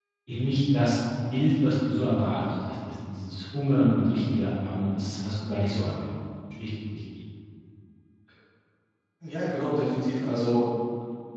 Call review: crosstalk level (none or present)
none